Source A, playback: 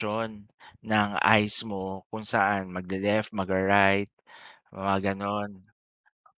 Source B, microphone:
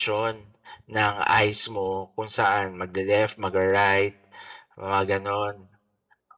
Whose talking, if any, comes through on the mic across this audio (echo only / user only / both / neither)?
echo only